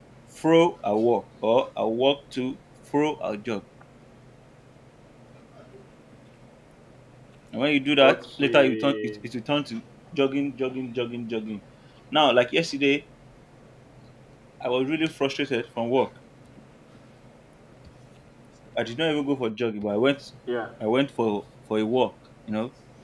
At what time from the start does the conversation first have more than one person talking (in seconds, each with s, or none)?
8.0 s